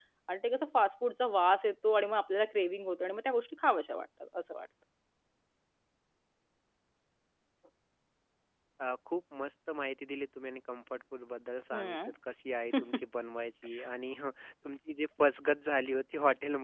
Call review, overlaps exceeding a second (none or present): none